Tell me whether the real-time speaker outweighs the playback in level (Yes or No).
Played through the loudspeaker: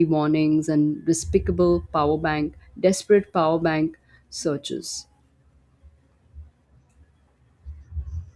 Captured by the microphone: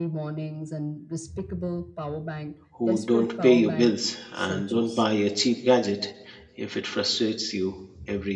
Yes